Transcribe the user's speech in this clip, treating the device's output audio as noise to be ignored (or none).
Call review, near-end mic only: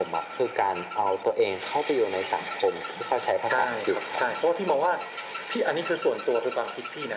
none